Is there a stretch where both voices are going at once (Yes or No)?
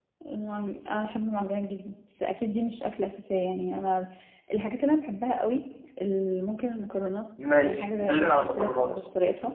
Yes